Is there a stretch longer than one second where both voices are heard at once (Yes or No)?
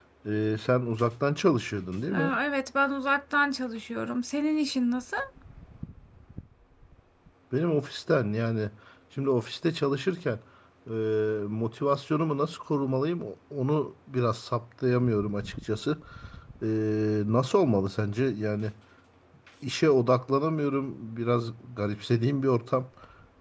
No